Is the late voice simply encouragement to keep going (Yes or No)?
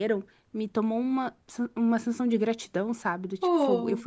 Yes